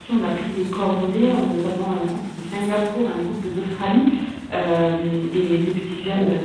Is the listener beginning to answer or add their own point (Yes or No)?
No